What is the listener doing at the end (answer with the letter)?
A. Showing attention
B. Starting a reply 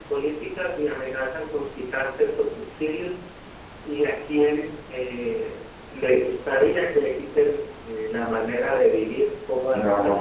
A